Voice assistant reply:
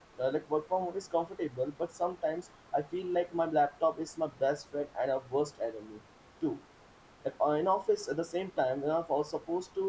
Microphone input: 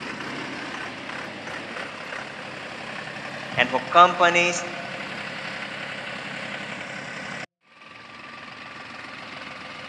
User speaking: Yes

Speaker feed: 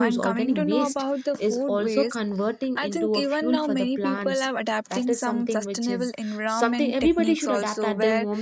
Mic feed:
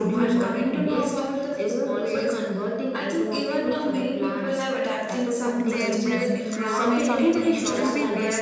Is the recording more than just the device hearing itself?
Yes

